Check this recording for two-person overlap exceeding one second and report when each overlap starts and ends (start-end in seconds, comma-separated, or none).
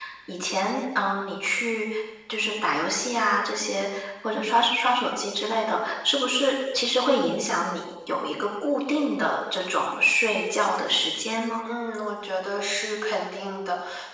none